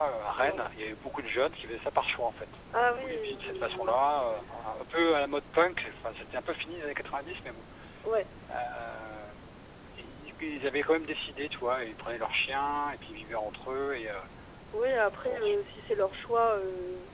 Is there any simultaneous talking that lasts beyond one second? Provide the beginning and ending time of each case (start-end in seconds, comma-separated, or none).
2.9-4.4